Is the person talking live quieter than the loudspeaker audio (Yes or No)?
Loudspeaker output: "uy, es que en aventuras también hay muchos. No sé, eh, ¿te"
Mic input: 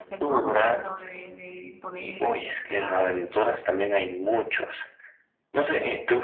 Yes